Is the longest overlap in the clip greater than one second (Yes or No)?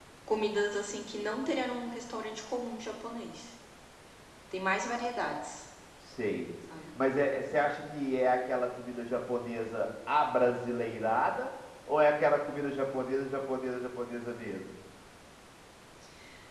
No